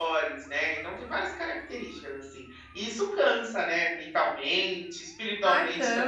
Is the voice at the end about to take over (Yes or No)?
Yes